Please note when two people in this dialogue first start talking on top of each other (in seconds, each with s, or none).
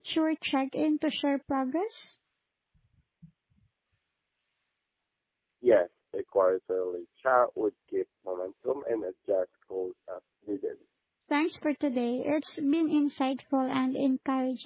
none